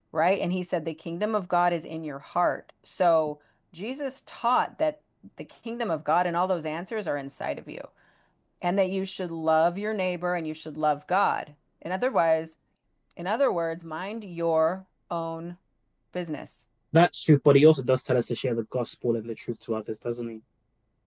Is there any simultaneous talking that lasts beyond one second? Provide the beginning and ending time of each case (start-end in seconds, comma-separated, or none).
none